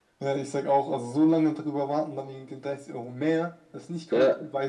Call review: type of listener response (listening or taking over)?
taking over